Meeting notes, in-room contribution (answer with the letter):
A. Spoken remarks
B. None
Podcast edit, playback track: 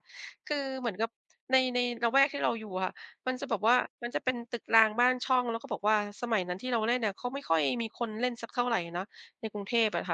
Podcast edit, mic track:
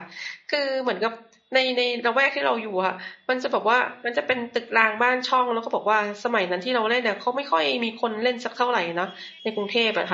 B